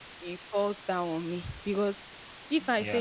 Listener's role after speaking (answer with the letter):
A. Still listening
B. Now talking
A